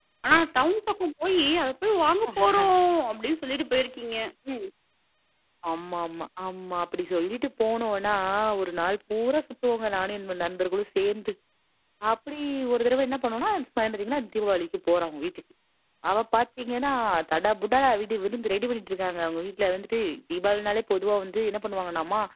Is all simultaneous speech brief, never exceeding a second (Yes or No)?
Yes